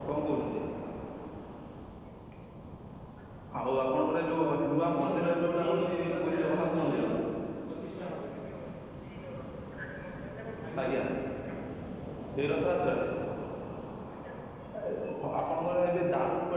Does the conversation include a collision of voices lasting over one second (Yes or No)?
Yes